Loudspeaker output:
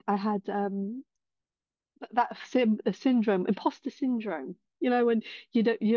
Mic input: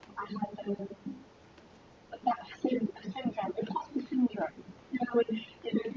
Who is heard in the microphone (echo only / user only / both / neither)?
echo only